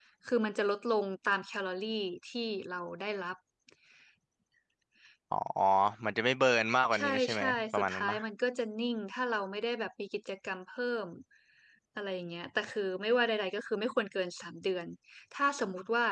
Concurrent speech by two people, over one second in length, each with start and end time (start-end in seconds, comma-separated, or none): 6.9-8.2